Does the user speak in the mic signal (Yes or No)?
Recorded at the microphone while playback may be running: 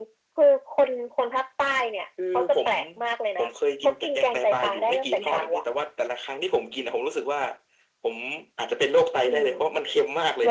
No